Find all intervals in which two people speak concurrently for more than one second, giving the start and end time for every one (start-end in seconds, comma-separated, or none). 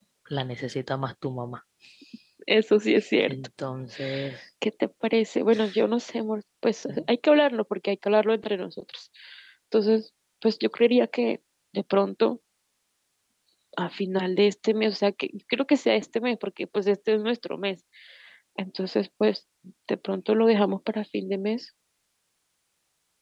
none